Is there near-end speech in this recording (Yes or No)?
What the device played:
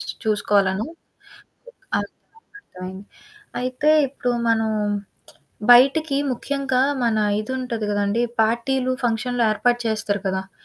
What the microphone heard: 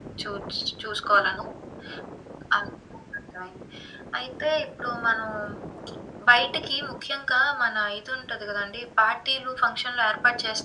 No